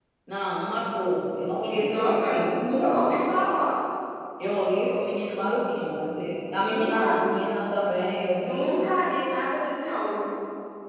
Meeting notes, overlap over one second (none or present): present